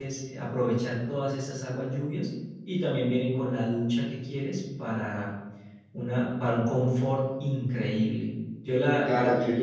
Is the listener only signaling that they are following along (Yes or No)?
No